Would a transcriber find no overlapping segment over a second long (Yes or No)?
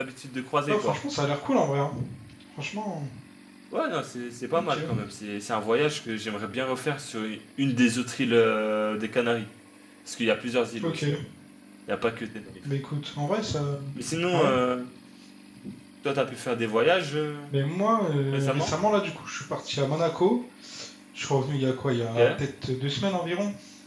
Yes